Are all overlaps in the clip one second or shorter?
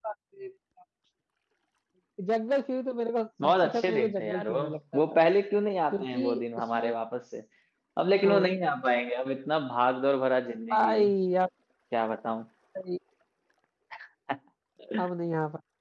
No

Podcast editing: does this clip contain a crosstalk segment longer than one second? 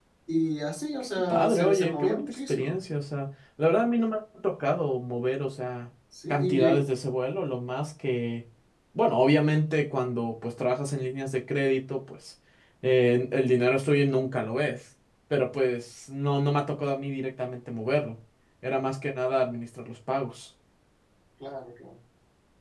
Yes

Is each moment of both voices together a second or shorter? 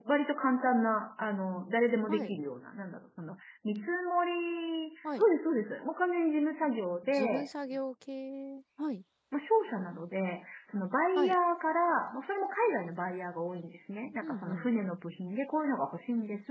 Yes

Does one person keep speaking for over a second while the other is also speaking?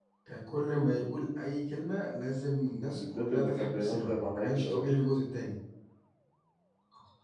Yes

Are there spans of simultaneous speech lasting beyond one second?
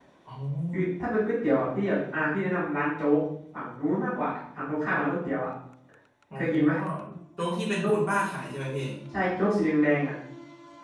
No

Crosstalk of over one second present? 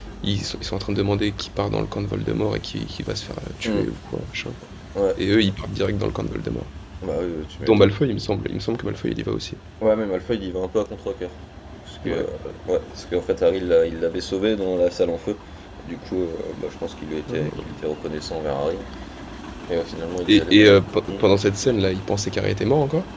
No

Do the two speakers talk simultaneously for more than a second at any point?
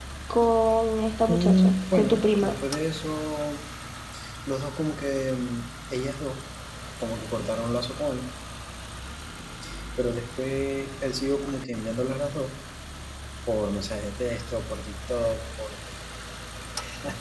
Yes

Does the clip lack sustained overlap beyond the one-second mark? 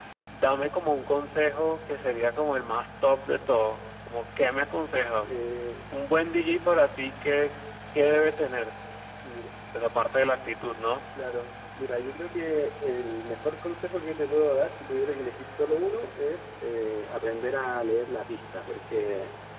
Yes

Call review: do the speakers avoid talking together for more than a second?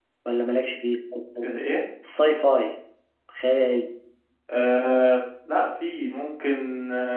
Yes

